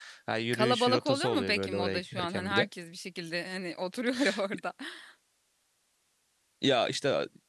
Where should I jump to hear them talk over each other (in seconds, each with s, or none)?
0.5 s